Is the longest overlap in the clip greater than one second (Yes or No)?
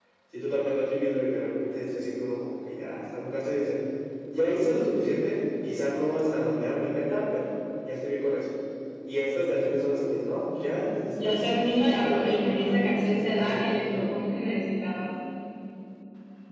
Yes